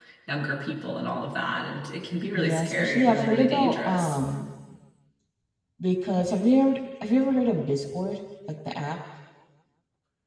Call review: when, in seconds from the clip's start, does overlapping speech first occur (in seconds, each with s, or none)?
2.3 s